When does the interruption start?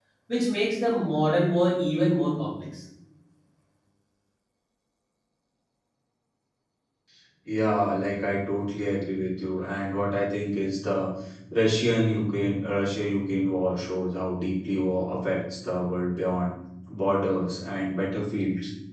none

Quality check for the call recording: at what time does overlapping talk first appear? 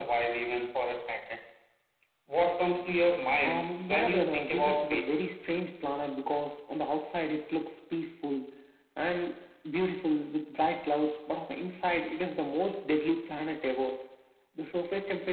3.4 s

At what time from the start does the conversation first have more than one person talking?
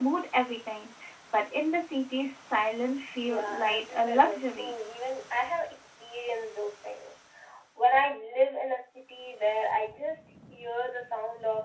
3.2 s

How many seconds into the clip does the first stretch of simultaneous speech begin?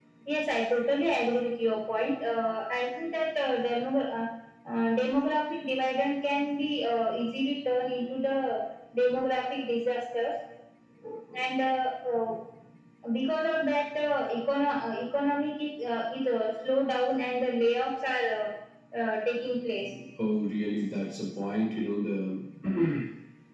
none

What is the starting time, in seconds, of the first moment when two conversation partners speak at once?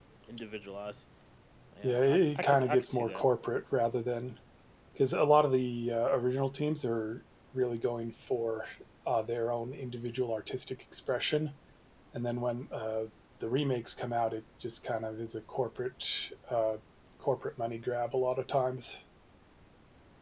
1.8 s

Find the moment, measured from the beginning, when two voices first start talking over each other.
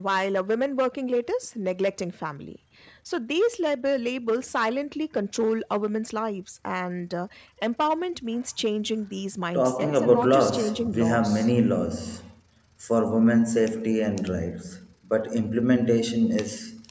9.6 s

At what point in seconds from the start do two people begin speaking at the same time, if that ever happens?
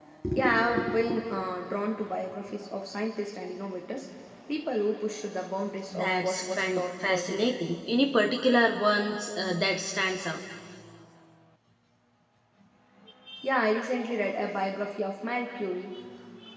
5.9 s

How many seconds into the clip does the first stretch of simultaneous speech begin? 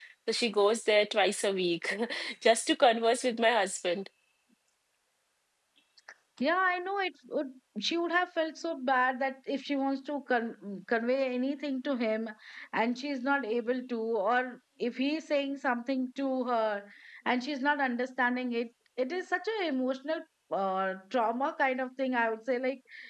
none

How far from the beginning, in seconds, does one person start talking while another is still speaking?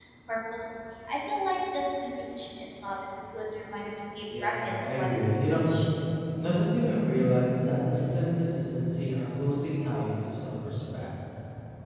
4.3 s

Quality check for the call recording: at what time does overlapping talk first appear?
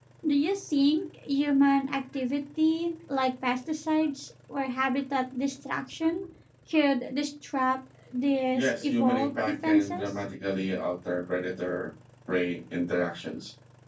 8.5 s

